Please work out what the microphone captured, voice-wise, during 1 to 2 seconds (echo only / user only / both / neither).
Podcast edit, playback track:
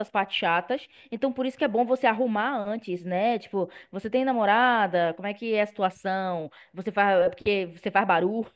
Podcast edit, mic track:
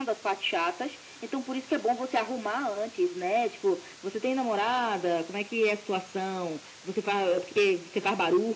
echo only